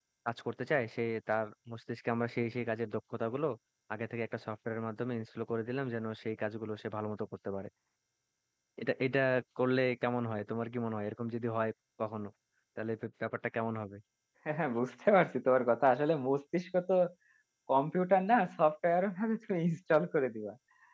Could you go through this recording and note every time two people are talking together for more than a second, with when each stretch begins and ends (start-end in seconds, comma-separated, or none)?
none